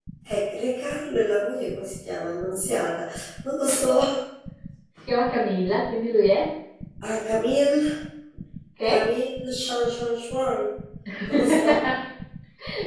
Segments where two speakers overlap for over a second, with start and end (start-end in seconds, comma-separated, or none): none